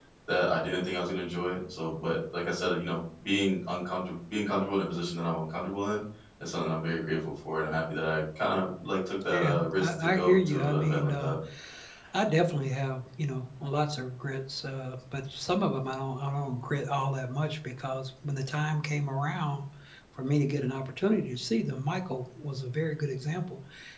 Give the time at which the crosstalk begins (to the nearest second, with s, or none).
9 s